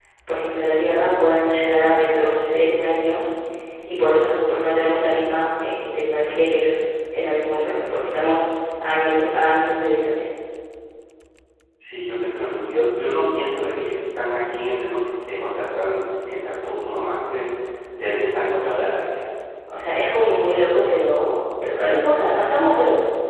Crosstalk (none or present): none